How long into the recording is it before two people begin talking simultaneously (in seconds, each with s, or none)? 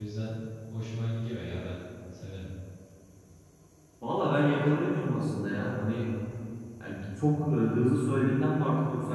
none